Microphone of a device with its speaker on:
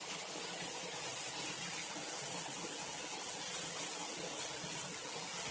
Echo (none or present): none